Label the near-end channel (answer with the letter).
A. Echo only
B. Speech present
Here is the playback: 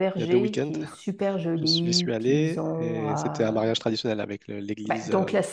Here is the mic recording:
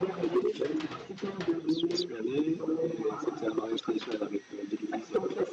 A